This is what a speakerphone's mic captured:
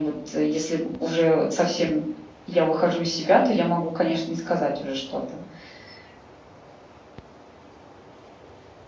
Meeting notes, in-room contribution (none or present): none